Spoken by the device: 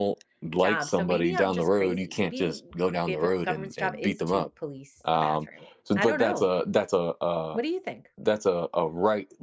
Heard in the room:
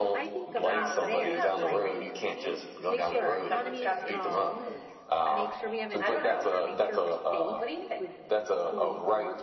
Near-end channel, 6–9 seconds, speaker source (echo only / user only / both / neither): both